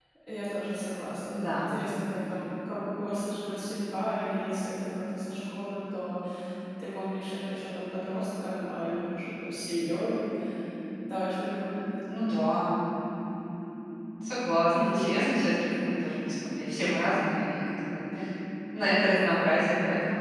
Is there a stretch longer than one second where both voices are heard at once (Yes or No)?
No